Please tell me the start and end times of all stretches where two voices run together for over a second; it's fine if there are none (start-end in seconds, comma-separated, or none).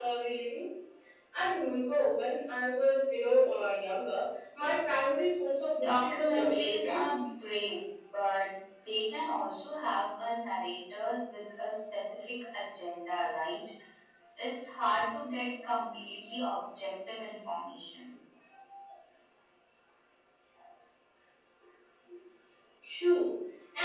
5.8-7.0